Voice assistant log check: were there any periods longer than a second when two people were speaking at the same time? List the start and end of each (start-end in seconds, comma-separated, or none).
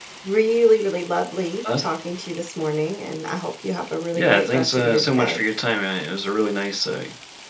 4.1-5.4